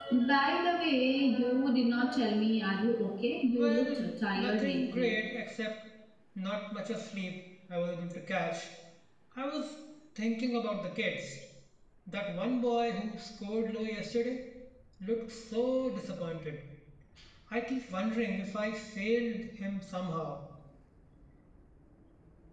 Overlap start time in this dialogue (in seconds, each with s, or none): 3.6 s